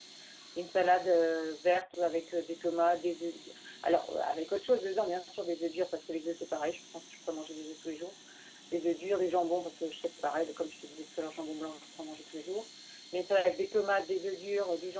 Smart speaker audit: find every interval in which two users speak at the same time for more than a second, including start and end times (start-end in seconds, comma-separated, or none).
none